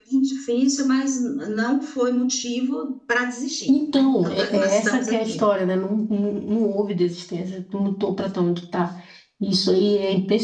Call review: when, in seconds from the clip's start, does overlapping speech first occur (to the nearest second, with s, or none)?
4 s